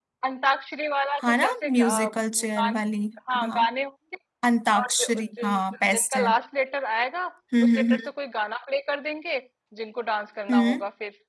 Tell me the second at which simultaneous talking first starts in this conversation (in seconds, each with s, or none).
1.2 s